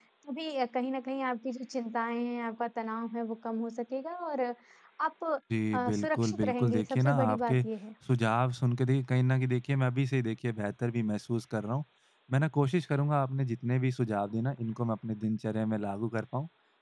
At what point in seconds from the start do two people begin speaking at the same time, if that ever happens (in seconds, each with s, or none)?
5.8 s